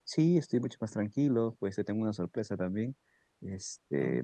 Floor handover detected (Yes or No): No